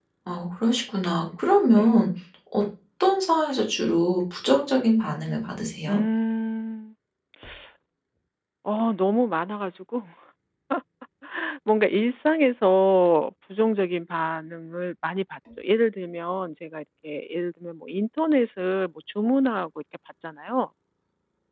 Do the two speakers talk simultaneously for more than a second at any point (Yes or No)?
No